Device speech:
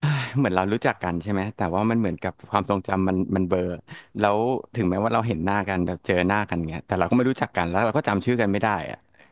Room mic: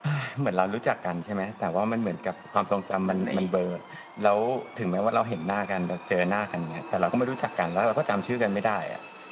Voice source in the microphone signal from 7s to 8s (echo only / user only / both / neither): echo only